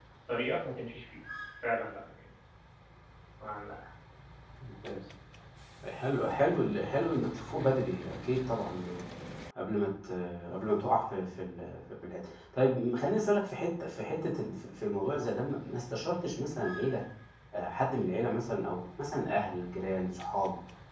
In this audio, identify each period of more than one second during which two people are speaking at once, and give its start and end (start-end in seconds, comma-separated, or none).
none